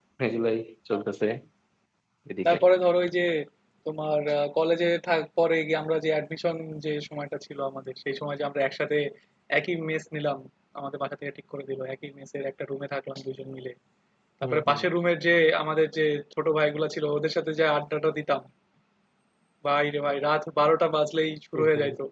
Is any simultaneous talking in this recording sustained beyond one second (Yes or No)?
No